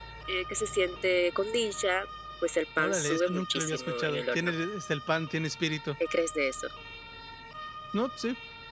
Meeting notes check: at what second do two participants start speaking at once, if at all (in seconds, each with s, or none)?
2.8 s